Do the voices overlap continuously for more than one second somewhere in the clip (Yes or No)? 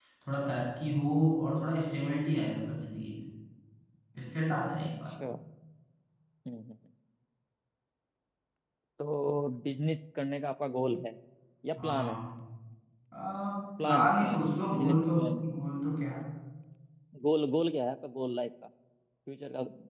Yes